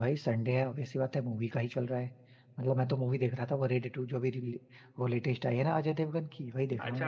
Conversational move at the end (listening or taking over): taking over